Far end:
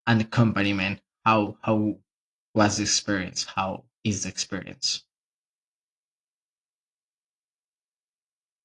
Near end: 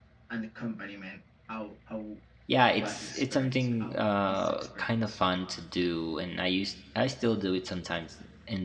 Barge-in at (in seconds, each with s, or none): 2.5 s